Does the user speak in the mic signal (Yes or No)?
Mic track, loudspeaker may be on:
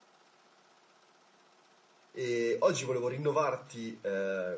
Yes